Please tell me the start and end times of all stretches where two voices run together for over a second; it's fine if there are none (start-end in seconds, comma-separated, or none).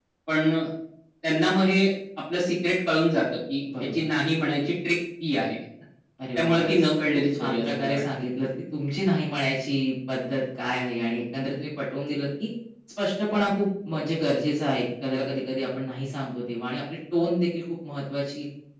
6.3-8.0